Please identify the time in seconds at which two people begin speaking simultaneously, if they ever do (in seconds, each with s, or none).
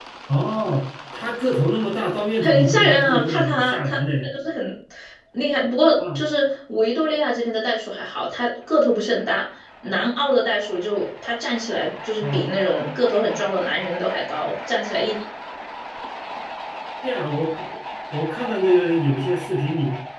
2.4 s